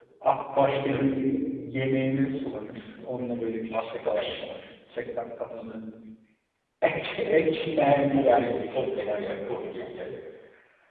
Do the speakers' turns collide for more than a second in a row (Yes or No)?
Yes